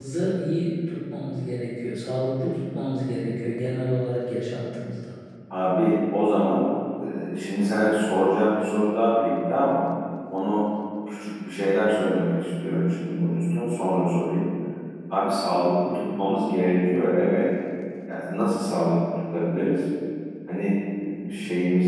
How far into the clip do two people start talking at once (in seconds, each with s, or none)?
none